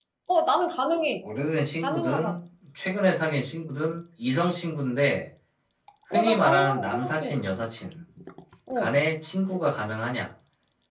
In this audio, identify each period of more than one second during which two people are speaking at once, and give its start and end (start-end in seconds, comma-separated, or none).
6.1-7.4